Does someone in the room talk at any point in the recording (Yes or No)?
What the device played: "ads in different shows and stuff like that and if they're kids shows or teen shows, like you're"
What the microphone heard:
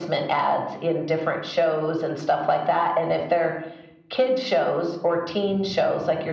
No